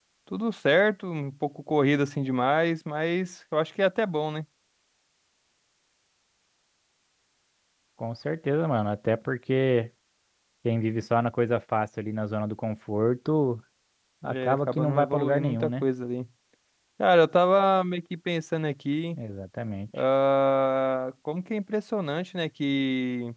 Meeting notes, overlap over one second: present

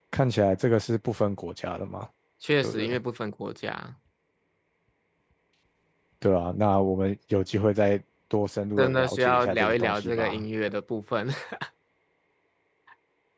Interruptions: present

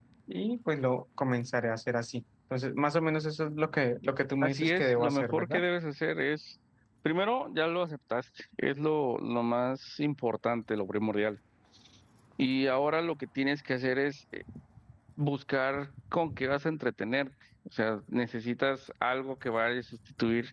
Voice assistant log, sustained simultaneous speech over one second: present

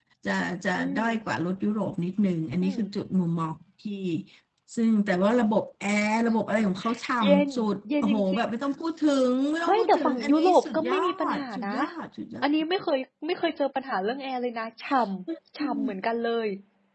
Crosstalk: present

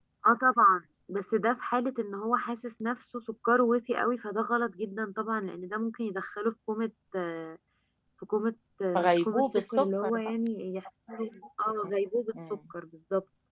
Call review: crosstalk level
present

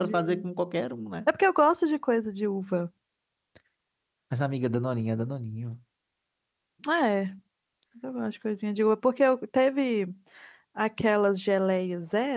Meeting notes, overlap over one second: none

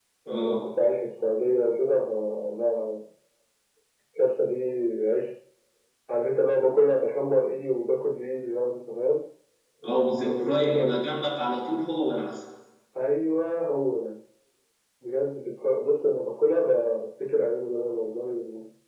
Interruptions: present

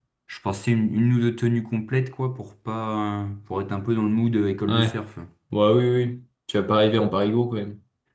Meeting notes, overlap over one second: none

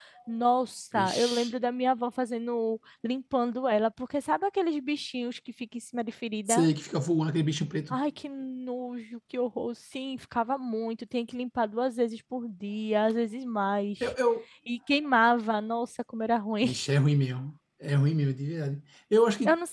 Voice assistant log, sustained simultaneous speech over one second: none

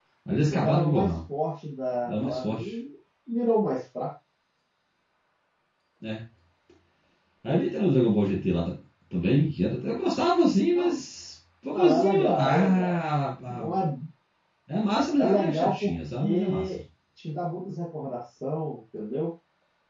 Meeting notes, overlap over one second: present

